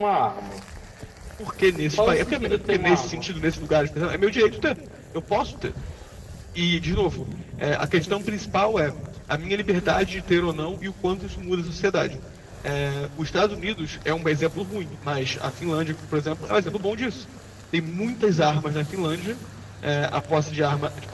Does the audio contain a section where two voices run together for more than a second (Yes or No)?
Yes